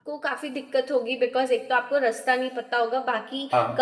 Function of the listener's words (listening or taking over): listening